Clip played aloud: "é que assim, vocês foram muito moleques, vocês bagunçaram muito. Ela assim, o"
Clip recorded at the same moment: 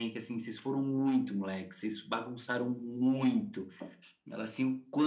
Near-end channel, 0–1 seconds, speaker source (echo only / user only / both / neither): echo only